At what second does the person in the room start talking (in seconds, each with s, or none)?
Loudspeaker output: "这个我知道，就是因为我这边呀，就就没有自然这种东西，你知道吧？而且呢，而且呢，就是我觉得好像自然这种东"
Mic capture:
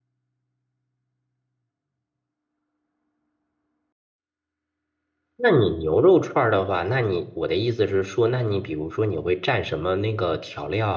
5.3 s